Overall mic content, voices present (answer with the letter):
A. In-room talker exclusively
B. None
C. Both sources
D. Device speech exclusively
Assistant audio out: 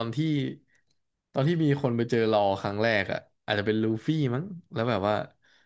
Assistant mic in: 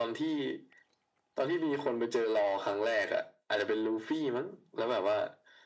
D